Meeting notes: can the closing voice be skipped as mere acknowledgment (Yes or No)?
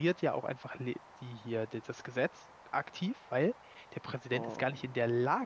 Yes